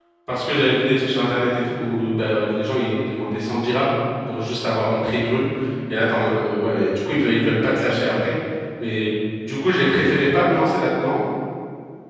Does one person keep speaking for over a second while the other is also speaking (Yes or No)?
No